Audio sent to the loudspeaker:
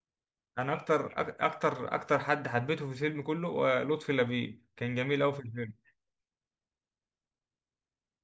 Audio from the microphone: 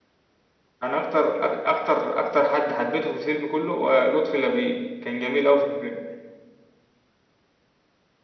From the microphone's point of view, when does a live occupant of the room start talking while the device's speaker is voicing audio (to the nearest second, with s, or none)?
none